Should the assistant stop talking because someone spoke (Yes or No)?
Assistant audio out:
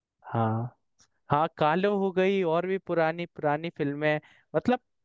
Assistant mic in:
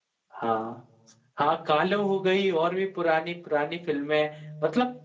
No